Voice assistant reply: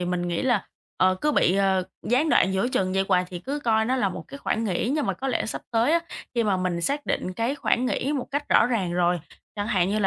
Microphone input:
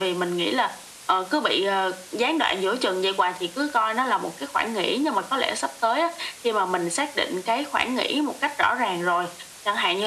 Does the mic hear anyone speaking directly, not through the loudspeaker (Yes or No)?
No